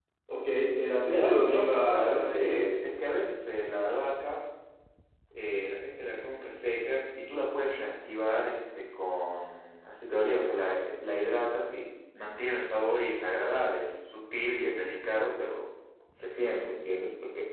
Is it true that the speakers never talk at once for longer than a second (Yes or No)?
No